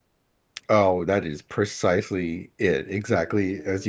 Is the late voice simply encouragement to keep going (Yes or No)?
No